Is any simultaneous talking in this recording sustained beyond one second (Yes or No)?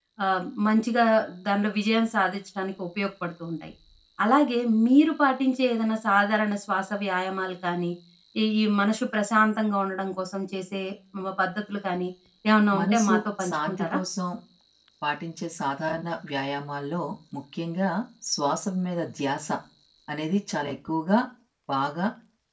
Yes